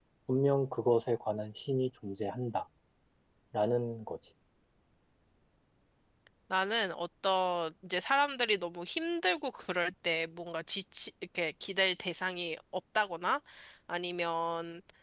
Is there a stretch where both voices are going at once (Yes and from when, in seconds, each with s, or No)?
No